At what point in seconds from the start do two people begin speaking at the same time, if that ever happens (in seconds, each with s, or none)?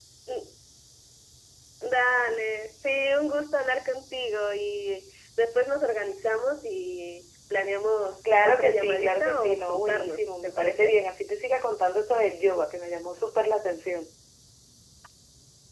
8.2 s